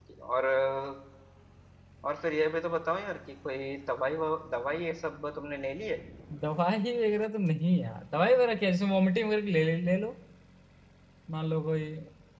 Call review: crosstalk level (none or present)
none